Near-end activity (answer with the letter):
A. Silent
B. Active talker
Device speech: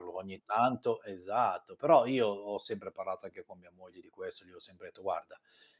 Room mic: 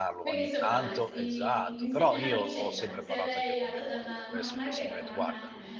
B